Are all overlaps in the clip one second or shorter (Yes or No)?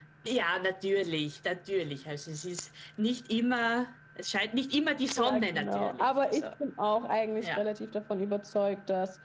No